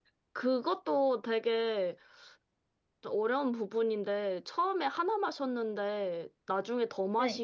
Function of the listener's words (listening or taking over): listening